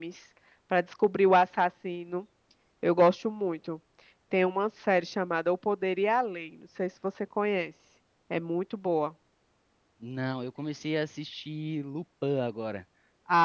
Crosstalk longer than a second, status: none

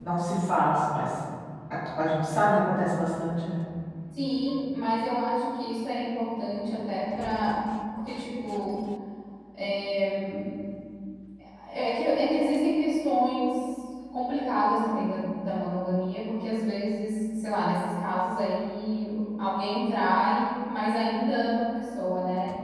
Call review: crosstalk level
none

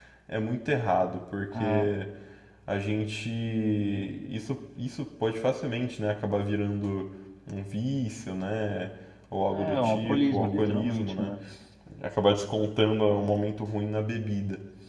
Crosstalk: present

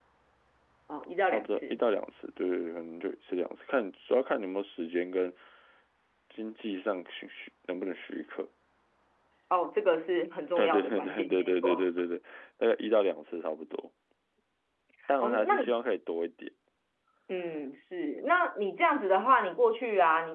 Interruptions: present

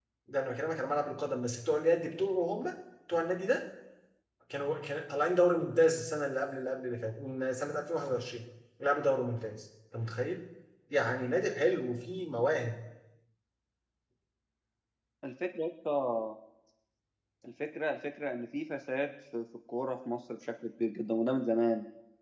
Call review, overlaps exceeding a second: none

